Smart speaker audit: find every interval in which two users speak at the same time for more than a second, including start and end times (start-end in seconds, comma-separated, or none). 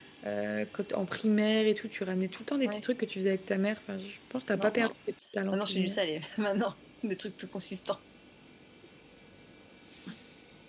none